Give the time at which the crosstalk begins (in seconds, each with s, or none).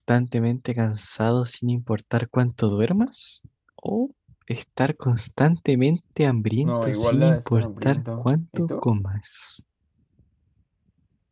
6.6 s